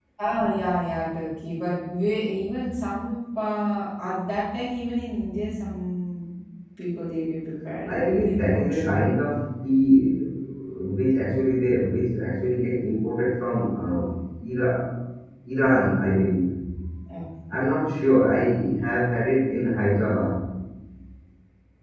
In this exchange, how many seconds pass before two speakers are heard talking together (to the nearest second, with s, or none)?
8 s